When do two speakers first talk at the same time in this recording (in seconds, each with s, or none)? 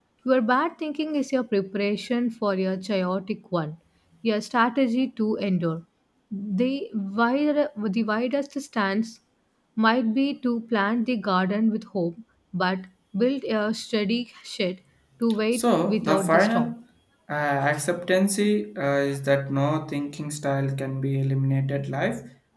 15.5 s